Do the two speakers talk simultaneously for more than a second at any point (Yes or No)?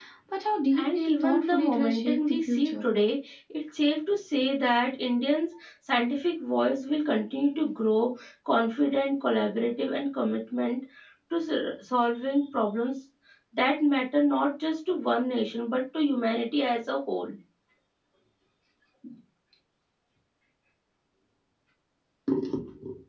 Yes